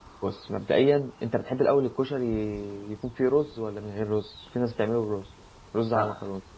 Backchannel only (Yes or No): No